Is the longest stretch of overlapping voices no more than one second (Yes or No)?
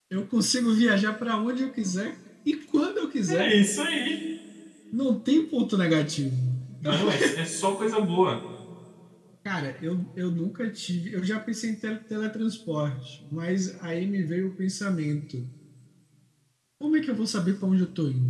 Yes